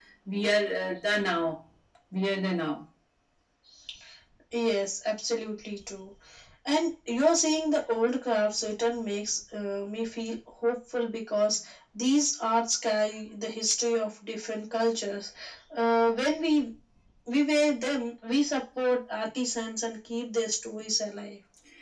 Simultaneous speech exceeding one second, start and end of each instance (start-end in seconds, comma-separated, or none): none